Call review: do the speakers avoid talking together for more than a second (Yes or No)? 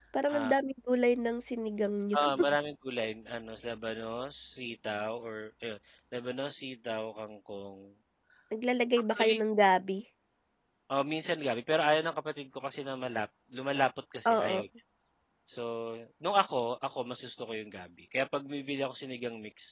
Yes